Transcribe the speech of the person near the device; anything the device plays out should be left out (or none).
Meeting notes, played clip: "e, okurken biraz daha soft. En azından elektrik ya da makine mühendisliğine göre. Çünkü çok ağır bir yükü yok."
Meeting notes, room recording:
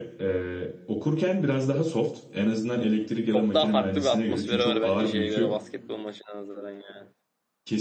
Çok daha farklı bir atmosferi var bence şeye göre basketbol maçına nazaran yani.